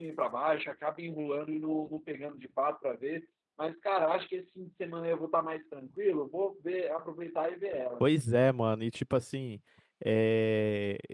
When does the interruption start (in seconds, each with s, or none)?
none